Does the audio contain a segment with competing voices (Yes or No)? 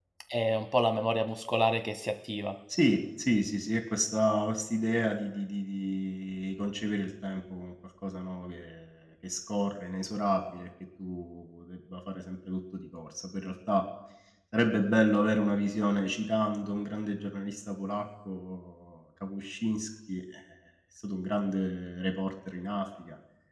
No